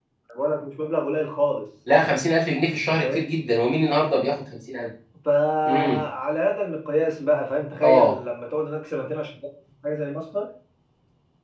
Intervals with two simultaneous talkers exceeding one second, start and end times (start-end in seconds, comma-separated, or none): none